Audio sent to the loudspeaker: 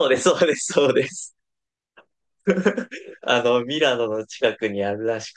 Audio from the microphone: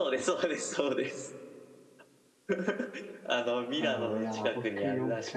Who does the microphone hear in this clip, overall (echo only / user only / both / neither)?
both